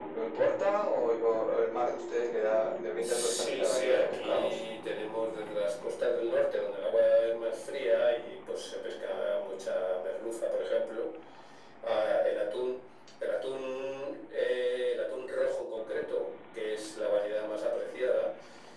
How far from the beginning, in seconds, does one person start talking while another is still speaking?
3.0 s

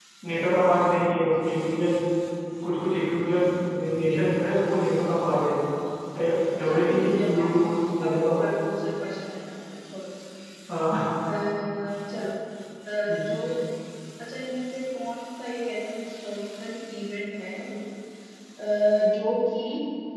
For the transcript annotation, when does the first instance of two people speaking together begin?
6.7 s

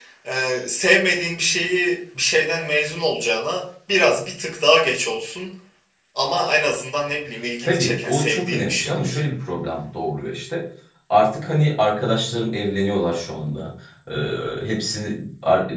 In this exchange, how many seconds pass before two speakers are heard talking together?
7.6 s

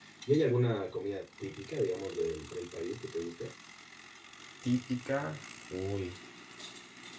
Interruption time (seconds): none

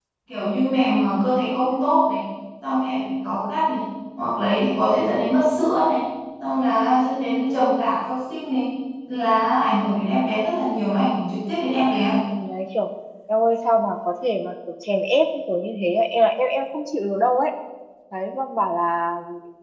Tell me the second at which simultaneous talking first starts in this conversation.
none

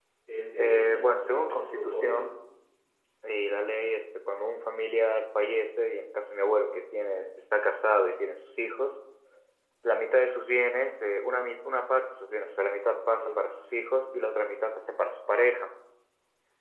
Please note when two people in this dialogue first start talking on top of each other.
0.6 s

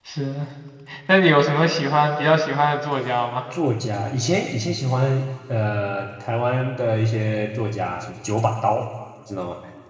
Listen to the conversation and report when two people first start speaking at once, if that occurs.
none

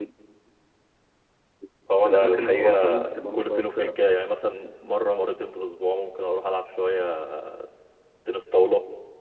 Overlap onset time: 2.0 s

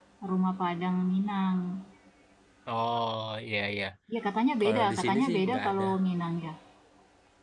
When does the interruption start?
4.6 s

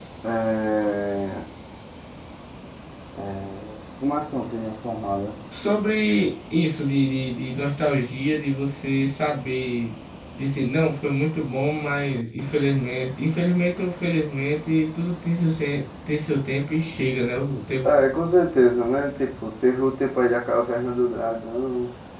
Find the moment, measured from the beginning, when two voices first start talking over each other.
none

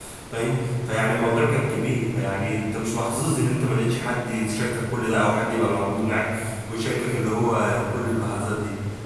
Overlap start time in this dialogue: none

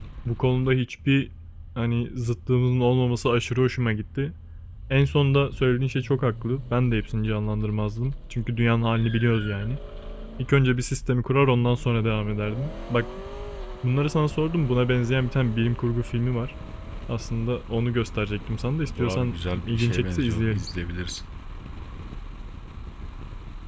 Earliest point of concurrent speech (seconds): 18.8 s

